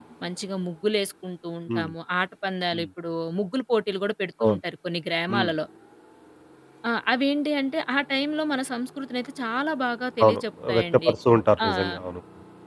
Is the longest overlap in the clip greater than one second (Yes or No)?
No